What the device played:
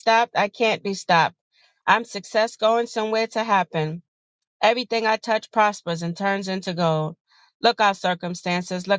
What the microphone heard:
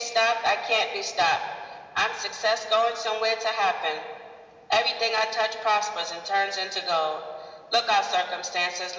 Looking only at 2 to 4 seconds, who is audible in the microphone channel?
echo only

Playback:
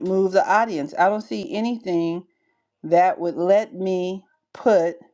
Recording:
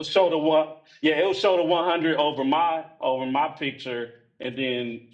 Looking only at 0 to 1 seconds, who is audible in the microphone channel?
user only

